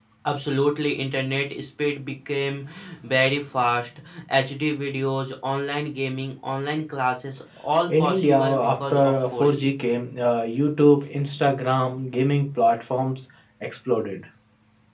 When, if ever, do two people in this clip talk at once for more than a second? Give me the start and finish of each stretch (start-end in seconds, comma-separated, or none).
7.9-9.7